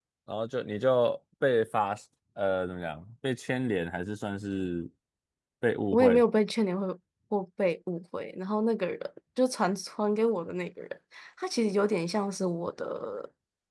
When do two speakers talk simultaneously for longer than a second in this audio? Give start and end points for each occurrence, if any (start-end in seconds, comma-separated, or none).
none